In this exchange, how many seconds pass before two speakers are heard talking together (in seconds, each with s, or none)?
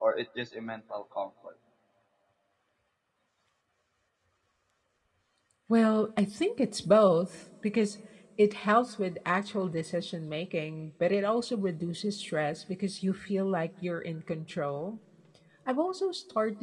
none